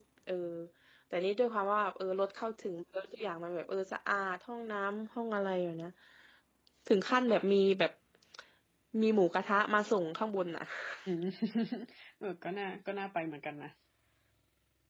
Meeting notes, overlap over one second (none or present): none